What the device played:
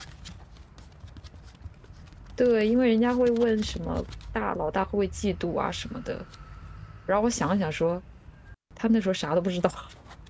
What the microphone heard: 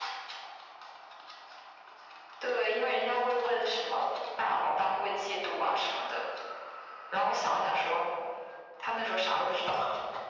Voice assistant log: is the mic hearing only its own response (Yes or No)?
Yes